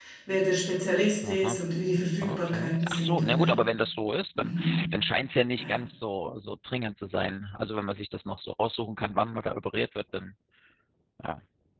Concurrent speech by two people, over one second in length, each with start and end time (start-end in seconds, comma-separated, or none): 2.2-3.5